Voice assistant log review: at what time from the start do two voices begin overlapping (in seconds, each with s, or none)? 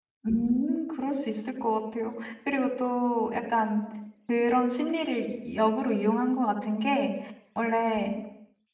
none